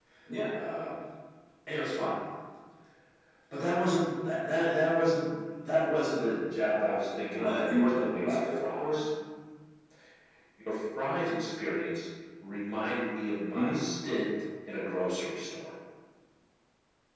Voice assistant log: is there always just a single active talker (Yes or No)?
No